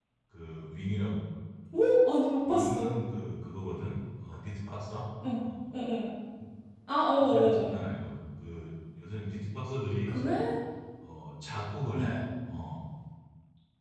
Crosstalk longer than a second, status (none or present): none